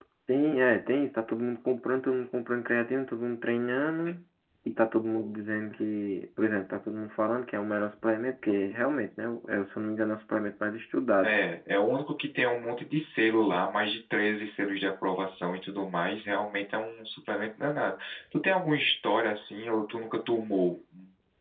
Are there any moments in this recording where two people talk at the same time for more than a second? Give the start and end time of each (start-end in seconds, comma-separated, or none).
none